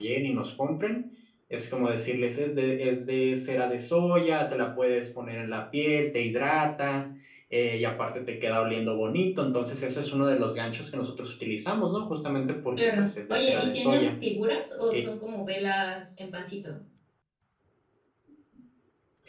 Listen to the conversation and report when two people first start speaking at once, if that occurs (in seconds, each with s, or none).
12.8 s